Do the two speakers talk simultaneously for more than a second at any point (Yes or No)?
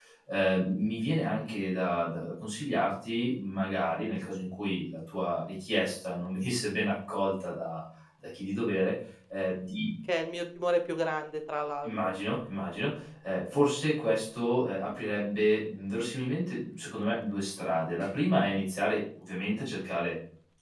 No